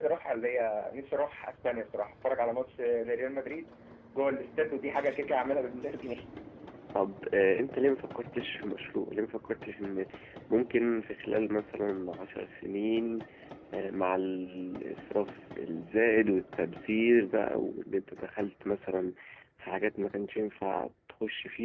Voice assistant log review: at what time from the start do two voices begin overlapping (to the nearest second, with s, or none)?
none